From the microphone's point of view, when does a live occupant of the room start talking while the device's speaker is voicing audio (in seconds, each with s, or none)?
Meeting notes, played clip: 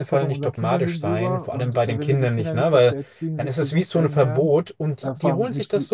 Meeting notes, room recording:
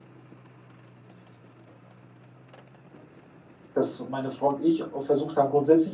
3.7 s